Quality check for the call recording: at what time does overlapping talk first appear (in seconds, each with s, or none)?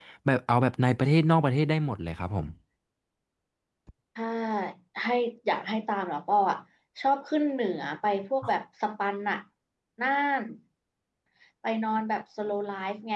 none